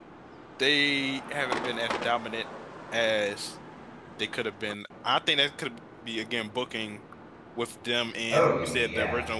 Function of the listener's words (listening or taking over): listening